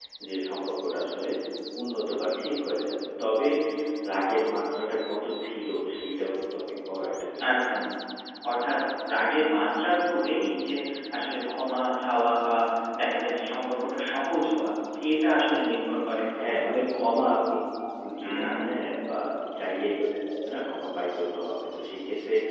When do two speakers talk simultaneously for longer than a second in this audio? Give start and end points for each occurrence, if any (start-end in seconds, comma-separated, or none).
none